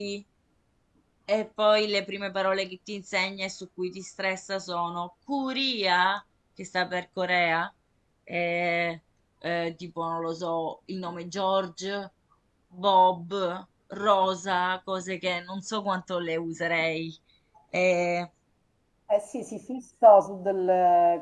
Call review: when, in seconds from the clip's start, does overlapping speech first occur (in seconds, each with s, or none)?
none